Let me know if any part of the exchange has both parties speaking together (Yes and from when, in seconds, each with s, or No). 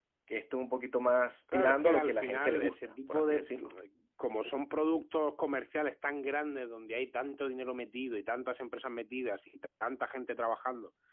Yes, from 1.5 s